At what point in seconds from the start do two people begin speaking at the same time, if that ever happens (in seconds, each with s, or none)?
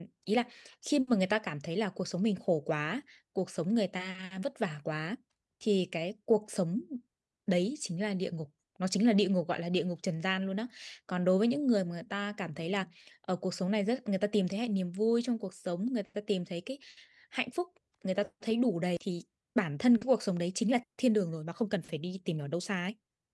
none